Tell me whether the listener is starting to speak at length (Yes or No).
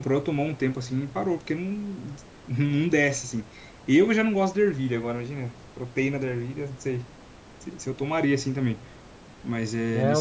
Yes